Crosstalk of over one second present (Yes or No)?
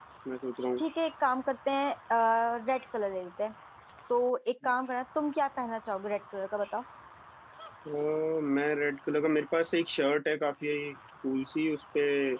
No